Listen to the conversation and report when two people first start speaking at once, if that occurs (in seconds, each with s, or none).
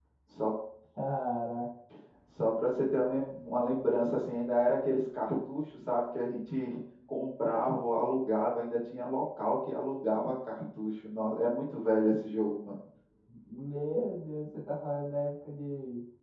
none